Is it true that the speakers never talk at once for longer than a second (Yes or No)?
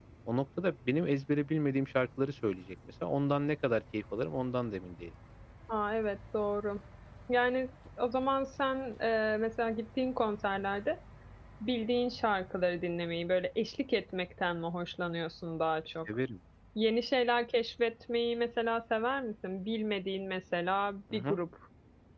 Yes